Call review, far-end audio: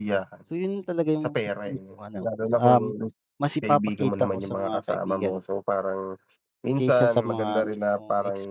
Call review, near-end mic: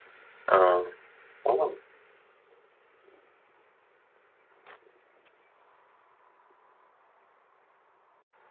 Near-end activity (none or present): present